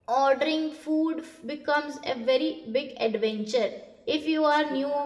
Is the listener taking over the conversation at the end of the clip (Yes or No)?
No